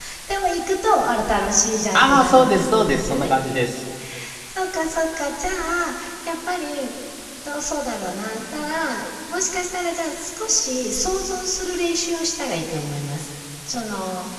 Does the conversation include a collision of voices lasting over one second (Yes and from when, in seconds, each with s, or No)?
Yes, from 2.0 s